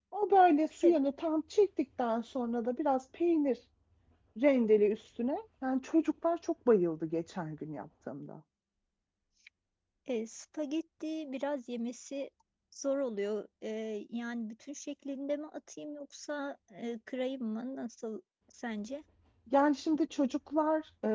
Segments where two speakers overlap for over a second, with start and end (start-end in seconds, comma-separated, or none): none